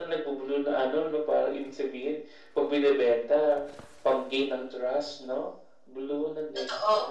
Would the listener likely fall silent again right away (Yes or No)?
No